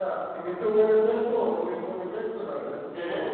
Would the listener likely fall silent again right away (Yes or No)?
Yes